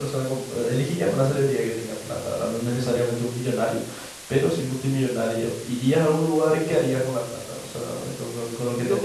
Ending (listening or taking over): taking over